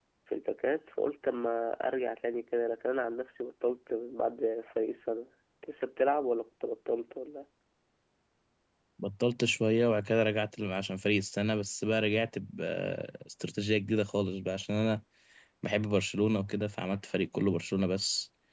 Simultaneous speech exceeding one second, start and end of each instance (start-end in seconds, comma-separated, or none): none